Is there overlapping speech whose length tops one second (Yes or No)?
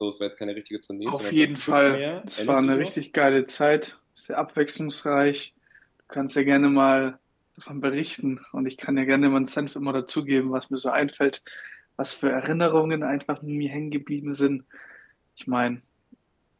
Yes